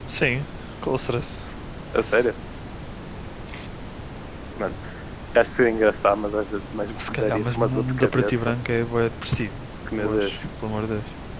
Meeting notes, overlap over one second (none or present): present